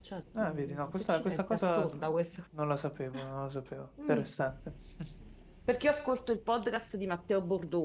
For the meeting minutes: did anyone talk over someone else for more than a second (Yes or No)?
Yes